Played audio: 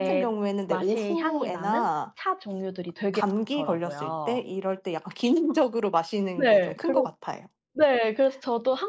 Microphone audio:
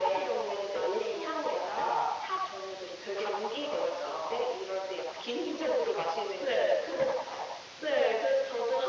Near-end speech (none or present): none